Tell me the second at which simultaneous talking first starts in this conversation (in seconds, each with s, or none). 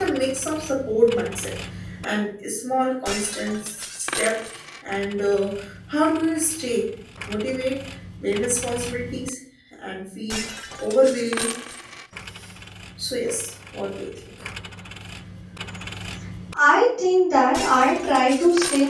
none